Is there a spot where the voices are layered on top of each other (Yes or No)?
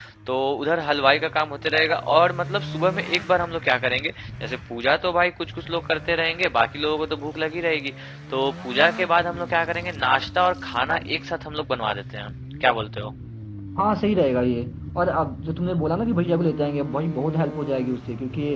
No